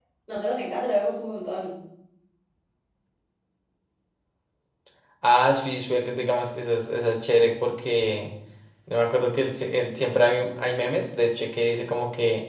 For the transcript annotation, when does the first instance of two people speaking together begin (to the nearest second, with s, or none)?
none